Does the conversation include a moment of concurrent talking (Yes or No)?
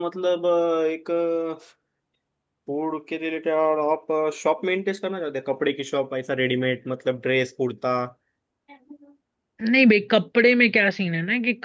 No